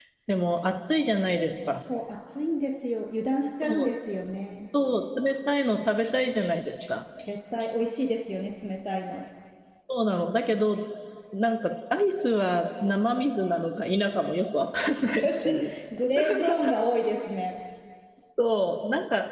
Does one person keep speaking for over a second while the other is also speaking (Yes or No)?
No